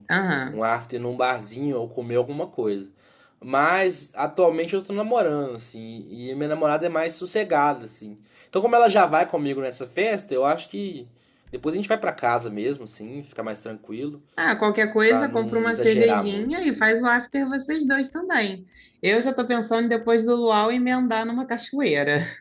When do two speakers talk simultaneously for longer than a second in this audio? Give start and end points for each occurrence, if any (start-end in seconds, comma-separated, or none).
15.1-16.8